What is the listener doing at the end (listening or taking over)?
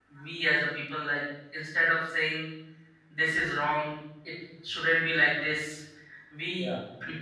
listening